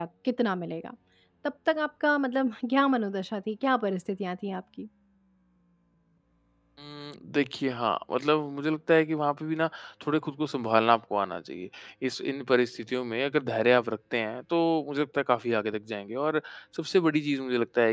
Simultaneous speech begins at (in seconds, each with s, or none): none